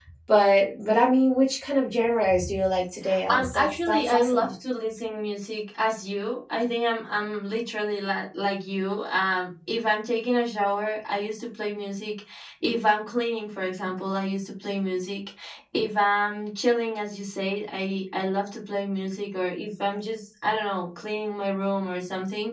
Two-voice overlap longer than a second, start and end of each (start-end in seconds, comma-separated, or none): 3.3-4.5